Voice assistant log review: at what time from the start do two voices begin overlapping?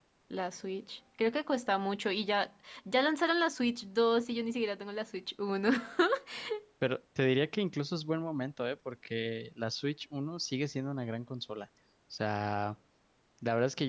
none

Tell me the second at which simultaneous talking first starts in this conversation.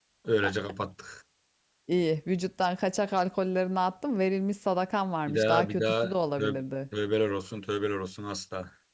5.3 s

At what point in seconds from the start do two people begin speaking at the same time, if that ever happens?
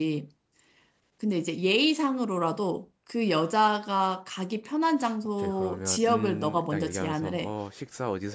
5.4 s

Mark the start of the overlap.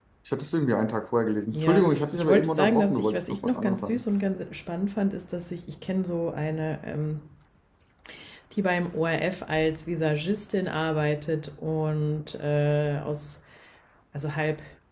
1.5 s

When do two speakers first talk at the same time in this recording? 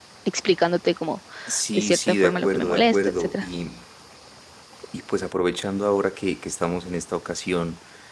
1.7 s

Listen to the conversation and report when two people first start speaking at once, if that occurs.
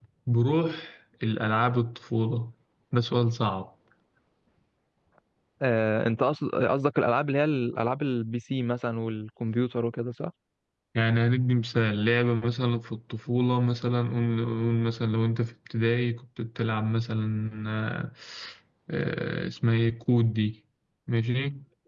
none

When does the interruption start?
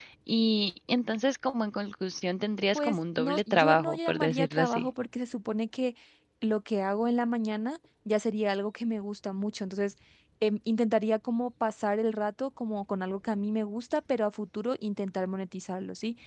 2.8 s

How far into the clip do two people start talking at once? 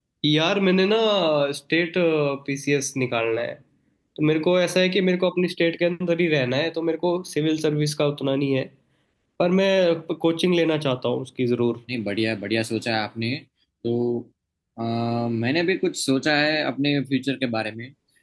none

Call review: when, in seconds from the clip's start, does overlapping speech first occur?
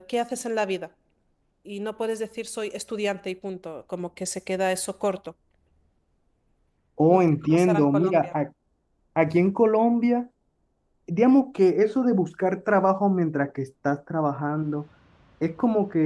7.1 s

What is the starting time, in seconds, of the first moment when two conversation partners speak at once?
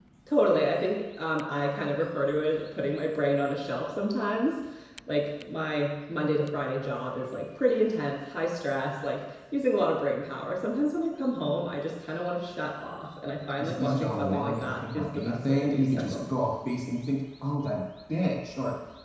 13.6 s

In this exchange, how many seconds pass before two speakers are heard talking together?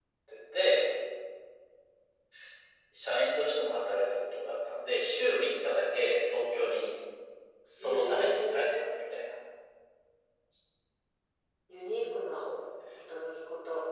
7.8 s

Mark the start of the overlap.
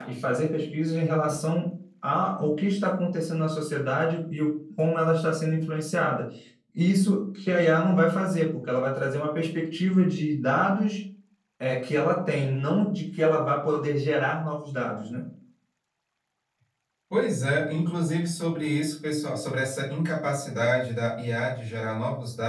none

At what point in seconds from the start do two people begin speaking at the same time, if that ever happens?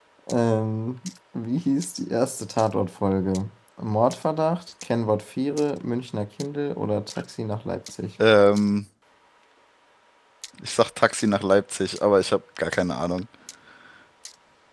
none

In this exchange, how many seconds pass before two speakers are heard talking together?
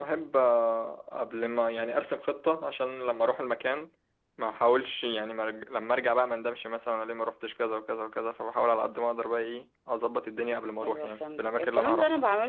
10.8 s

